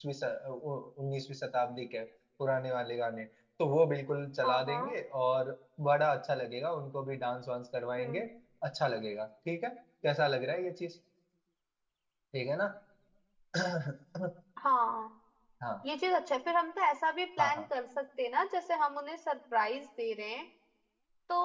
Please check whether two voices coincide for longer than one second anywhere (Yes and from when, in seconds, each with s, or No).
No